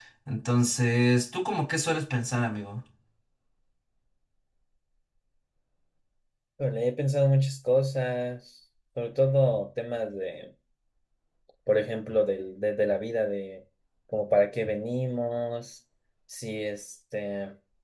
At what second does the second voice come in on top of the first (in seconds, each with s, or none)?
none